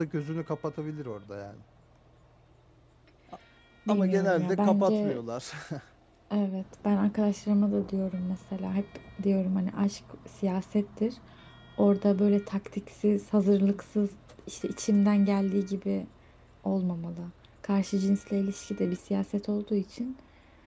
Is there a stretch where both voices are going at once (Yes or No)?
Yes